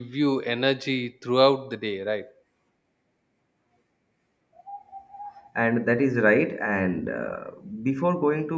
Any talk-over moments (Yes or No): No